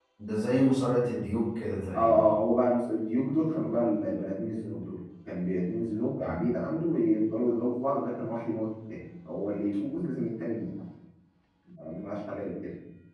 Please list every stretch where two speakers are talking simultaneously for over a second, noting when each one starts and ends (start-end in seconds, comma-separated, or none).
none